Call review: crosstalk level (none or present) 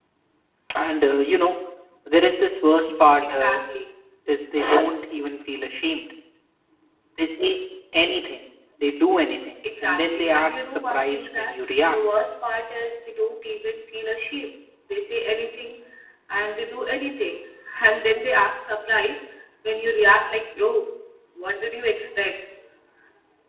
present